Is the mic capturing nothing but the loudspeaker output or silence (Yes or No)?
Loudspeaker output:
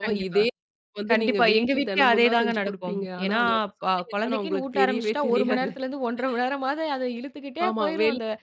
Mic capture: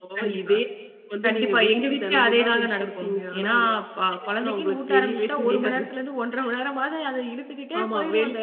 Yes